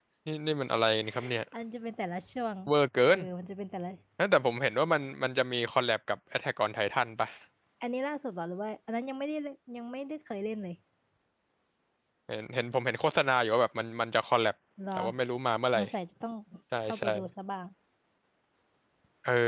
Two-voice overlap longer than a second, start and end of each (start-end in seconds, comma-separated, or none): none